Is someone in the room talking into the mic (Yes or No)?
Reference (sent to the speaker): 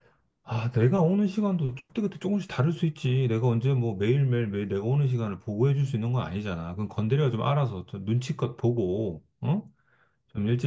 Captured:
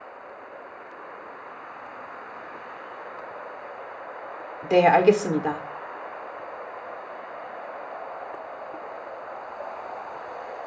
Yes